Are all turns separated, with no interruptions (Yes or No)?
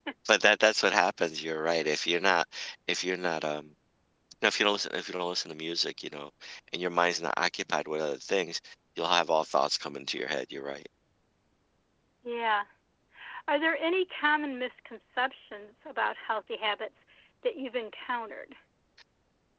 Yes